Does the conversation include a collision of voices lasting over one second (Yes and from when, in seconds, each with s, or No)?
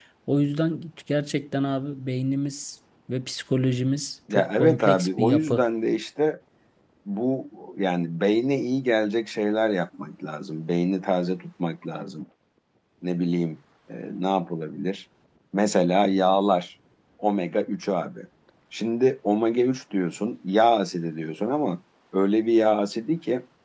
Yes, from 4.3 s